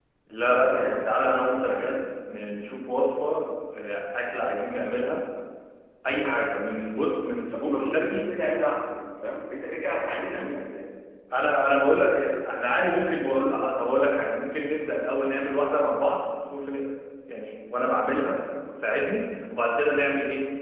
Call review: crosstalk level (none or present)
present